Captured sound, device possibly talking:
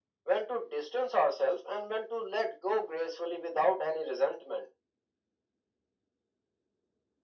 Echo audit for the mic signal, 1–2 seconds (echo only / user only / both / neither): echo only